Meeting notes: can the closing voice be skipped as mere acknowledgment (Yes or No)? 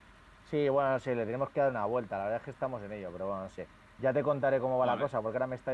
Yes